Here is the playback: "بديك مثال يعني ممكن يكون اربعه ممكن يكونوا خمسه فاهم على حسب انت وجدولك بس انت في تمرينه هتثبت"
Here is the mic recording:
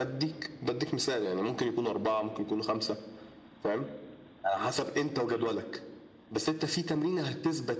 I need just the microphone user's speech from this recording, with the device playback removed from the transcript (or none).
none